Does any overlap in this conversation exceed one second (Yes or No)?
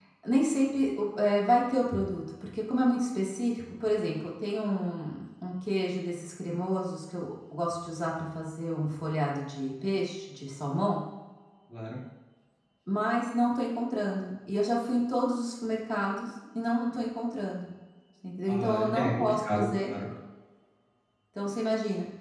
Yes